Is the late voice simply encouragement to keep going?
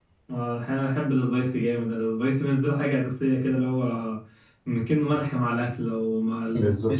No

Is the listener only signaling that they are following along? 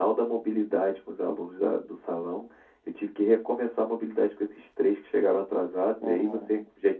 Yes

